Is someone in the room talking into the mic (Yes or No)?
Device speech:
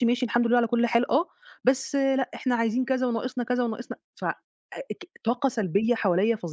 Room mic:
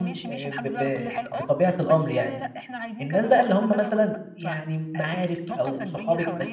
Yes